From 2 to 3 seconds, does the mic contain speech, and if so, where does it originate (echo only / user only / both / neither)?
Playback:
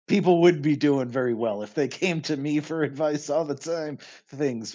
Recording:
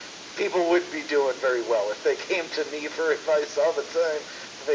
echo only